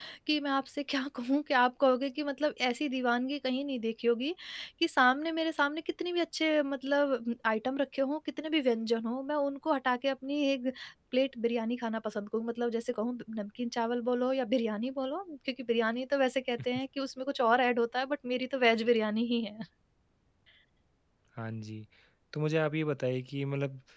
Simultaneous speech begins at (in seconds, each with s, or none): none